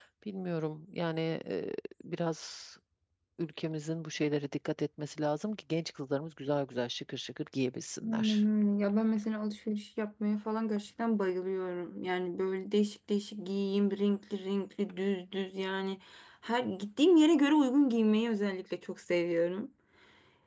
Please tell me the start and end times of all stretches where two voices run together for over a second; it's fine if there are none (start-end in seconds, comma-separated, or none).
none